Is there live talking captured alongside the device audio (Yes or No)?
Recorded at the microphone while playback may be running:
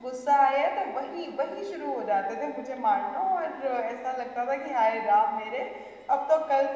Yes